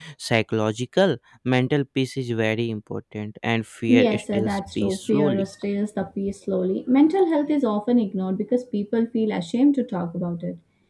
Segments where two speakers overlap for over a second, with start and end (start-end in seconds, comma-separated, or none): 3.9-5.4